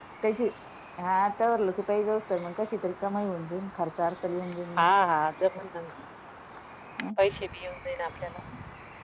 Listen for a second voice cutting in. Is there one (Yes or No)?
No